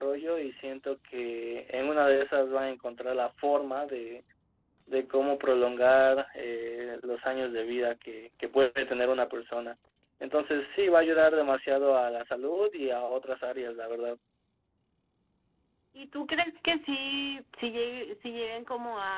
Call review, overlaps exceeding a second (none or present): none